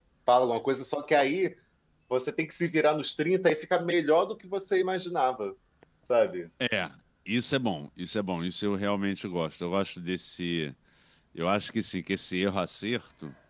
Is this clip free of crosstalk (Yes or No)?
Yes